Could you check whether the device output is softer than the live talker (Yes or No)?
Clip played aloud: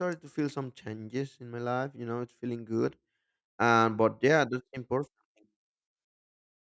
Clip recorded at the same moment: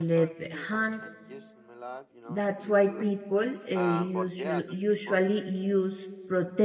Yes